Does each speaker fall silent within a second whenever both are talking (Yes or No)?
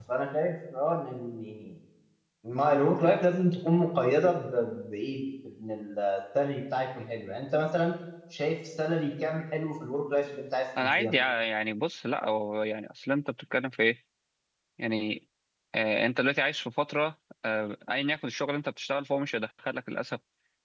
Yes